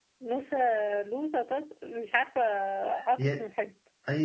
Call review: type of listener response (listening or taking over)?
taking over